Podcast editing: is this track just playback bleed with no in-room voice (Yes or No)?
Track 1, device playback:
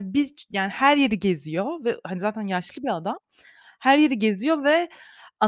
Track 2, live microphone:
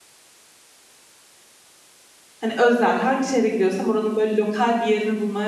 No